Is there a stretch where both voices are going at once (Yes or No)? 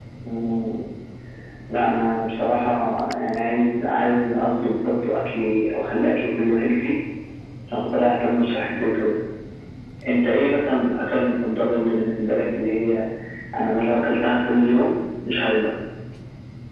No